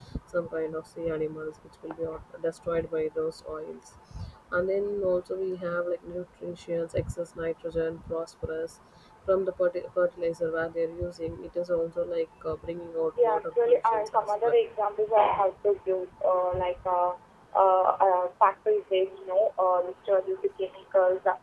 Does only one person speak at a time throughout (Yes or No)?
No